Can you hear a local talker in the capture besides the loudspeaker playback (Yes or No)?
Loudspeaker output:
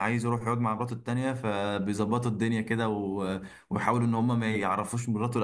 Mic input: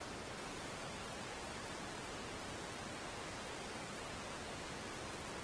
No